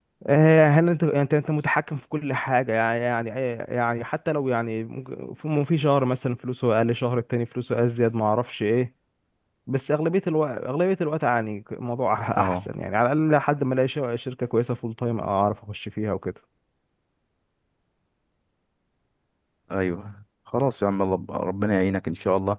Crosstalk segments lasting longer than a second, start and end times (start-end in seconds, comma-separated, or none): none